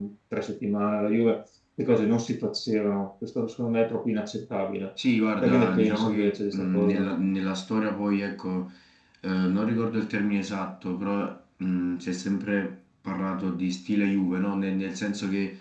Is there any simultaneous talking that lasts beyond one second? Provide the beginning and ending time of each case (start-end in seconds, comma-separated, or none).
5.4-7.1